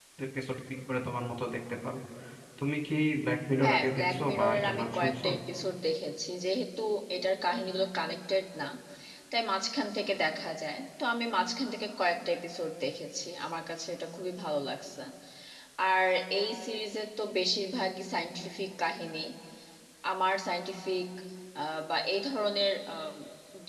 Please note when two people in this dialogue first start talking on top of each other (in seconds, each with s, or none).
3.6 s